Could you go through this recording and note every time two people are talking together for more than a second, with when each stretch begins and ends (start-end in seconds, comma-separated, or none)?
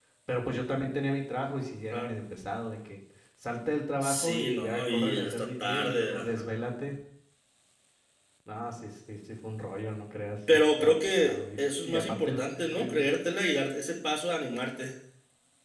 4.0-6.5, 10.5-13.0